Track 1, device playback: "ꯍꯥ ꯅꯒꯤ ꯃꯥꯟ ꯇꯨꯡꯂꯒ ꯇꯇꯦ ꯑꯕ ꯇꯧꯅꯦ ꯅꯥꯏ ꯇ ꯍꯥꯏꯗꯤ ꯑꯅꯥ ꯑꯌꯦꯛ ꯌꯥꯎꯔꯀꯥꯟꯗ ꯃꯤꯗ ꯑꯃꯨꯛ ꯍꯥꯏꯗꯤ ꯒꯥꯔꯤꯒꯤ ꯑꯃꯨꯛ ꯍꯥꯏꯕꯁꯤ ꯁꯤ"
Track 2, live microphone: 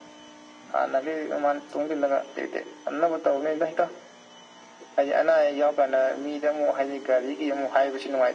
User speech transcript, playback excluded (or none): none